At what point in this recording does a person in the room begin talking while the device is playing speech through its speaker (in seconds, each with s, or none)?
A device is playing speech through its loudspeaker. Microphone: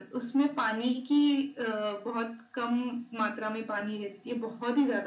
none